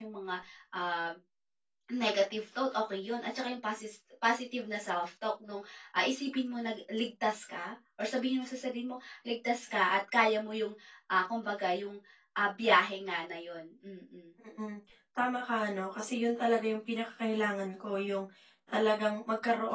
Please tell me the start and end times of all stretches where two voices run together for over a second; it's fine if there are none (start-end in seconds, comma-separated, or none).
none